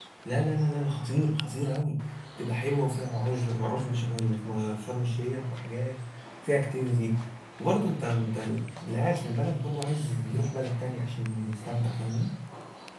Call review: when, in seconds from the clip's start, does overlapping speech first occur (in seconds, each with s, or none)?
none